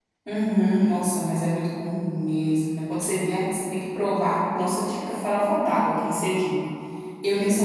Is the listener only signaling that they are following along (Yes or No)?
No